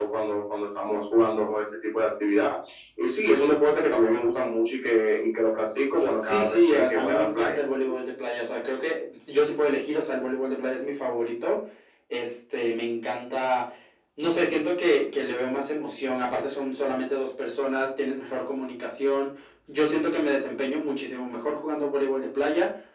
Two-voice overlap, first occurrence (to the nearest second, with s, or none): 6 s